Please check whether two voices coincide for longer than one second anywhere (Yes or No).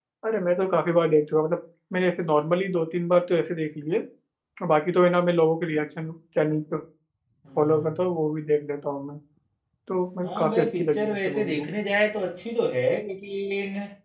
Yes